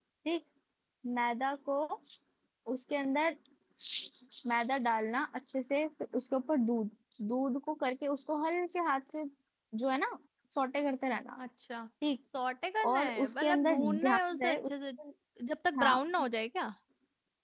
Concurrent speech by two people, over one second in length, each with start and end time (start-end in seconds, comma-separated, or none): 12.9-14.7